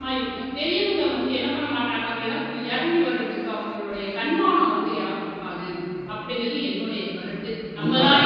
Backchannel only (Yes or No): No